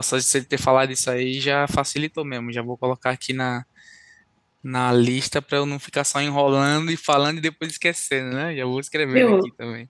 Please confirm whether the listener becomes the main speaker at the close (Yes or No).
Yes